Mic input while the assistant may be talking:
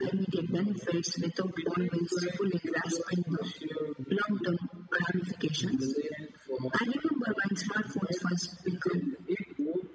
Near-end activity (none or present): none